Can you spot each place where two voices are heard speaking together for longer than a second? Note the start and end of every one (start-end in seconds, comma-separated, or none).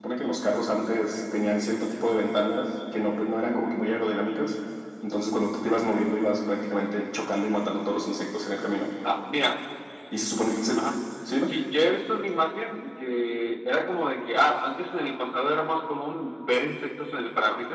none